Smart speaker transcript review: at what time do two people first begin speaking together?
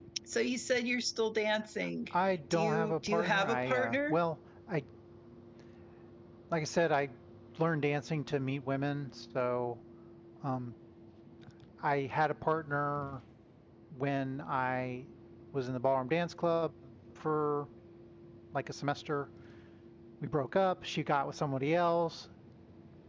3 s

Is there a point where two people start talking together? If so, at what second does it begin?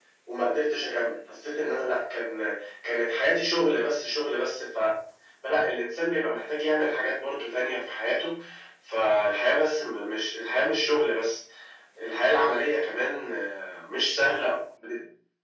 none

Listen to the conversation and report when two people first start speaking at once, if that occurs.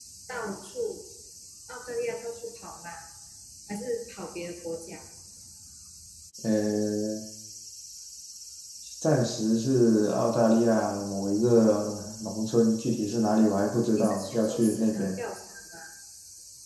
14 s

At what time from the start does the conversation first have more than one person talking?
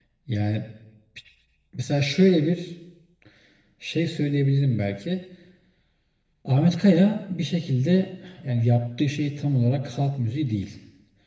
none

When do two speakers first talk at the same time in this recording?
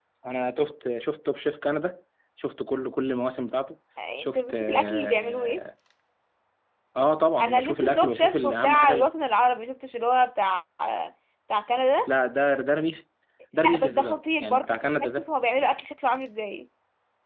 4 s

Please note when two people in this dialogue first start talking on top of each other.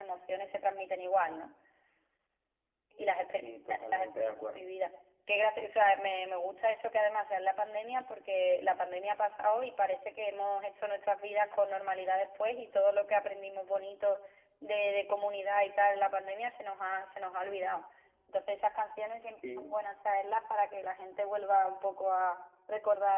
3 s

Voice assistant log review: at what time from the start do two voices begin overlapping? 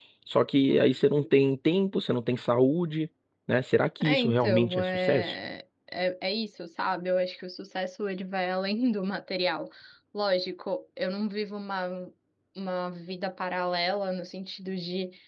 4 s

